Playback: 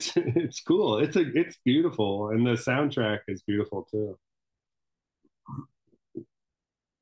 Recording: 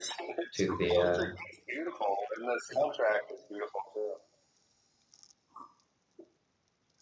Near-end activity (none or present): present